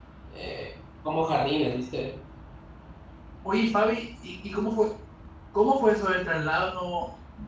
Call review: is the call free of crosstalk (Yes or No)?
Yes